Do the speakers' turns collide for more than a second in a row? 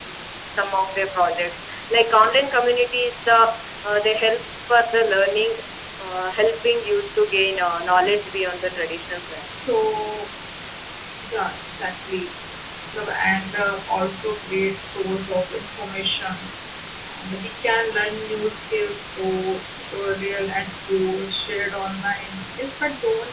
No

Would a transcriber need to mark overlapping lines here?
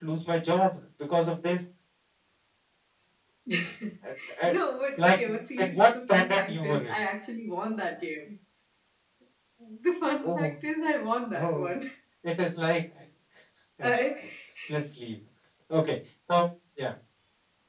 Yes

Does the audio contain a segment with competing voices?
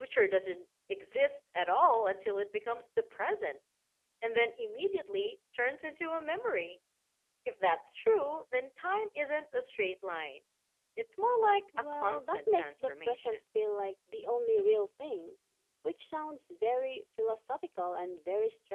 Yes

